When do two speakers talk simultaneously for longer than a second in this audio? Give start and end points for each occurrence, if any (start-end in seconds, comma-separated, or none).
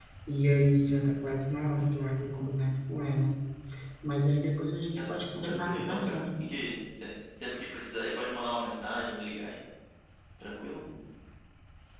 5.0-6.2